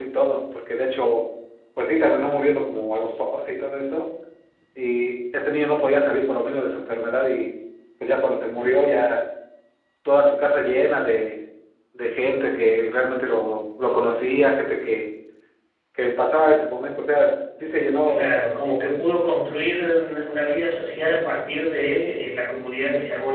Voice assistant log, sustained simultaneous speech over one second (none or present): none